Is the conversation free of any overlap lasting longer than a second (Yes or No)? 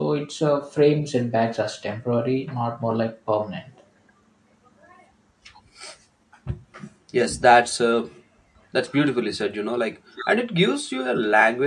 Yes